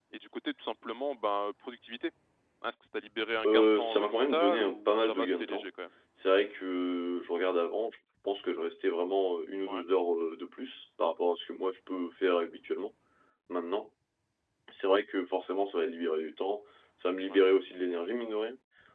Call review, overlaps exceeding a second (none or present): present